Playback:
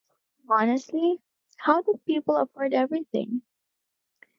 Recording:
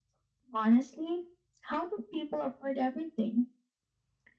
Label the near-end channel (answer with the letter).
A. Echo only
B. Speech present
A